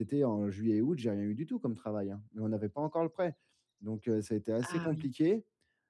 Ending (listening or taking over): listening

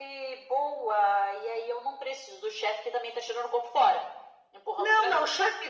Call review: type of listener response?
taking over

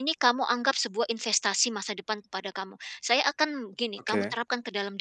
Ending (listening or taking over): listening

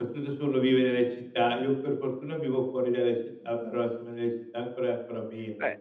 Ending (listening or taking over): taking over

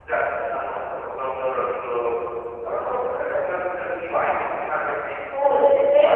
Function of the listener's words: taking over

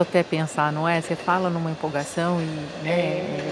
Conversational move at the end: taking over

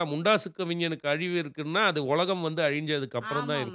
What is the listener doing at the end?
taking over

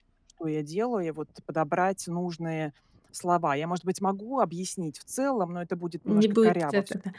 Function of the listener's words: taking over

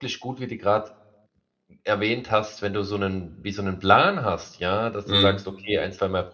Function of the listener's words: listening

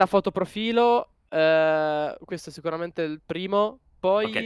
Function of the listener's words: taking over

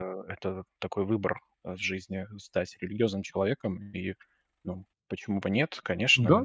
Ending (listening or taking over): taking over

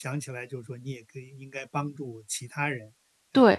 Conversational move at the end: taking over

